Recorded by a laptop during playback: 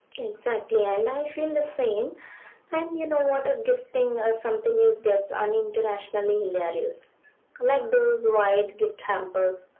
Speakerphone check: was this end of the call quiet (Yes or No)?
Yes